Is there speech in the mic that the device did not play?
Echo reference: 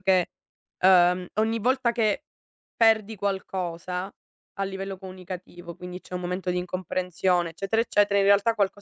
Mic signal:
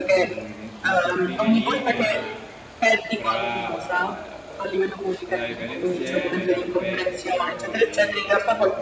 Yes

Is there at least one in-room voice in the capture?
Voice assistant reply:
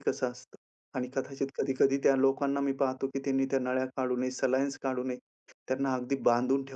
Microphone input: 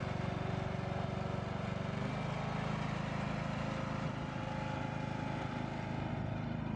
No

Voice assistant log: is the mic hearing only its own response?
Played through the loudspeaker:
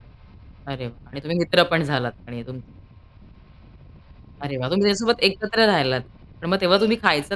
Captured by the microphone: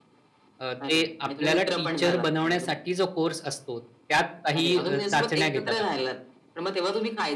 No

